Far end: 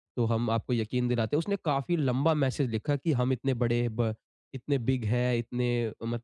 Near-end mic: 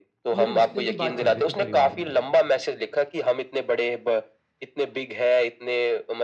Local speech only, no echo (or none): तो मेरे रिश्ते की बात चल रही थी परिवार में।